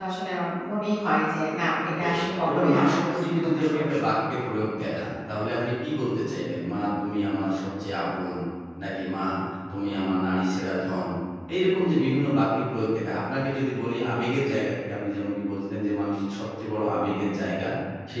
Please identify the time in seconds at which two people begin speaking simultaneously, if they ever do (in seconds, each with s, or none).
1.9 s